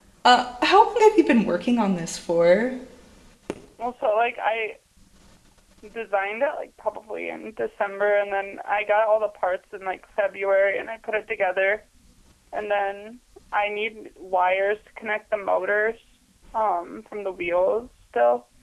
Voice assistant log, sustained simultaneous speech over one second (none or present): none